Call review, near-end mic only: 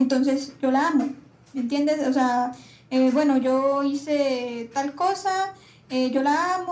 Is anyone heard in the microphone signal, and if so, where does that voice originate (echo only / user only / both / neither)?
echo only